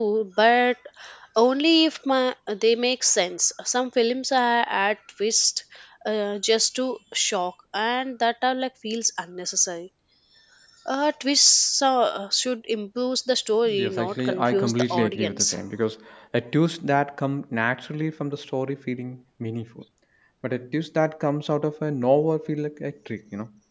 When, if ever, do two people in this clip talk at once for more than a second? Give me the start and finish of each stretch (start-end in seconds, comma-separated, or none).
13.7-15.6